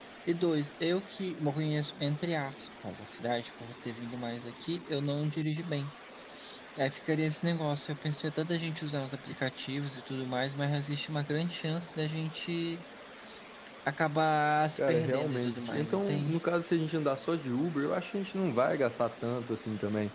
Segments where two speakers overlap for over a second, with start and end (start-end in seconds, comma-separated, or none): 14.8-16.4